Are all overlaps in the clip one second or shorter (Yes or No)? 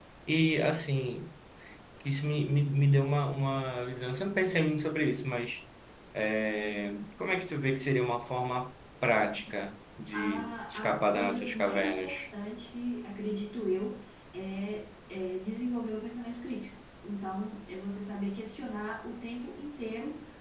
No